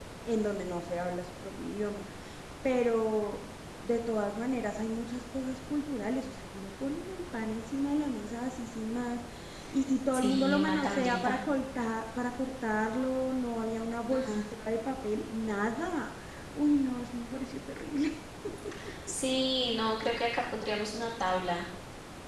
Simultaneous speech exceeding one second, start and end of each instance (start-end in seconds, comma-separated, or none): 10.1-11.4